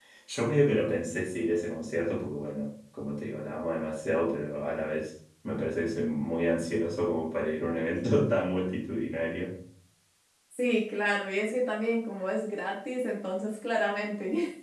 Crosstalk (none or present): none